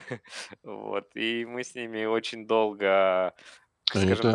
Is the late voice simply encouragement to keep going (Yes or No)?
No